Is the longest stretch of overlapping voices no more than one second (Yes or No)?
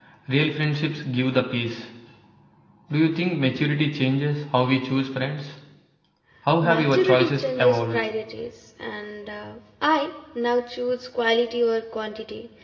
No